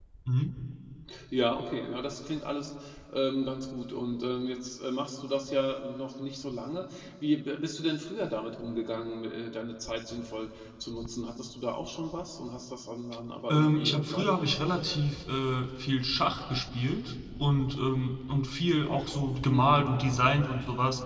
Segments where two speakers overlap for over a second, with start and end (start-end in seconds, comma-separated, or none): 13.5-14.7